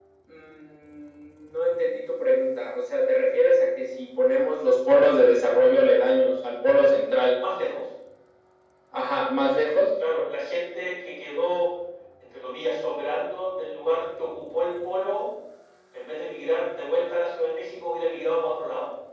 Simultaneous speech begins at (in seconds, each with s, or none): none